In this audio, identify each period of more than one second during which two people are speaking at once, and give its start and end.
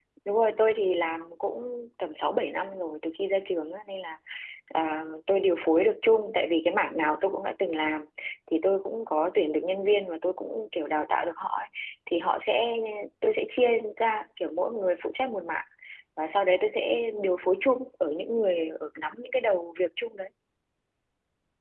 none

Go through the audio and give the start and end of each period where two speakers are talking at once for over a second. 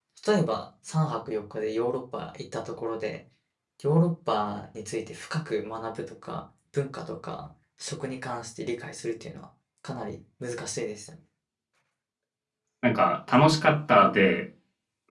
none

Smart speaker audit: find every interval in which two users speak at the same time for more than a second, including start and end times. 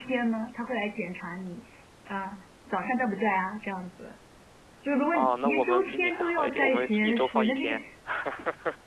5.1-7.8

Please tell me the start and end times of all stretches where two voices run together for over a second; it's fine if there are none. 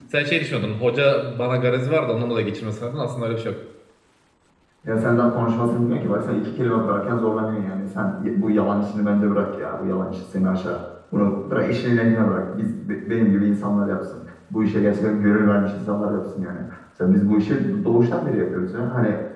none

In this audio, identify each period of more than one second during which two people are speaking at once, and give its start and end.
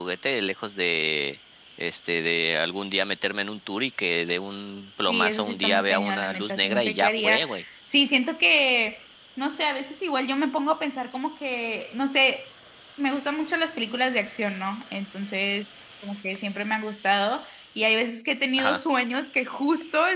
5.1-7.5

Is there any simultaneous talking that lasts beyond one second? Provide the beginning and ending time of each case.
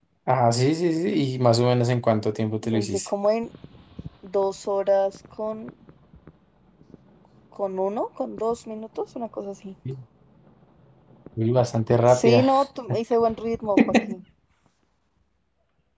none

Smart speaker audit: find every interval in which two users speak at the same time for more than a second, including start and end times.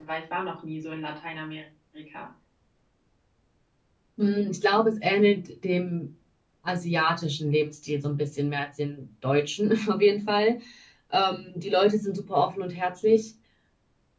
none

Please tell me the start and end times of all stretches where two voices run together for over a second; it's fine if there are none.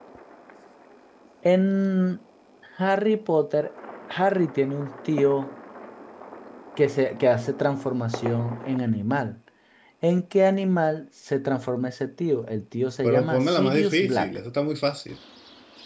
13.0-14.4

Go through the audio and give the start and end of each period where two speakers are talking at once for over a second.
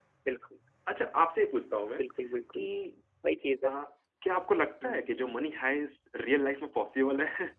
none

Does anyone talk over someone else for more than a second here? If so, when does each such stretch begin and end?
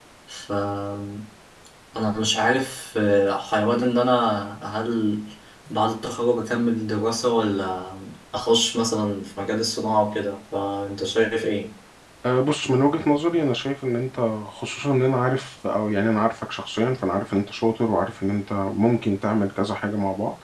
none

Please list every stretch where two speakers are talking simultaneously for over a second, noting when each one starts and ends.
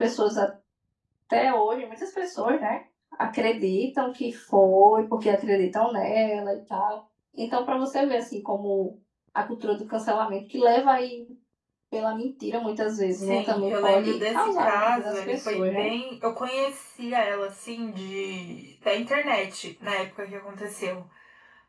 13.2-15.9

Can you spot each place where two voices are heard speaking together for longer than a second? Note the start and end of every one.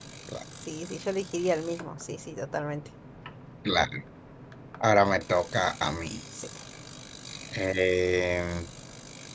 none

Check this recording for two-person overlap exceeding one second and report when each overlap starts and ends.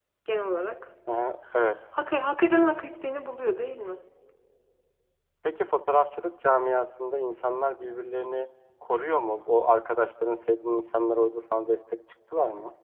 none

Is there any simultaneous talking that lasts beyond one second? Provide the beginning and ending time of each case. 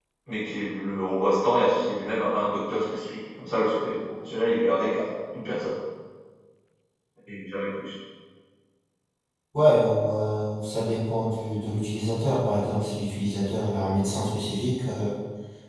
none

